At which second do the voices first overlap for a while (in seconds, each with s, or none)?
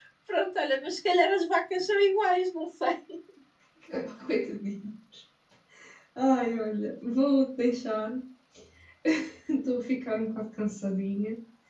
none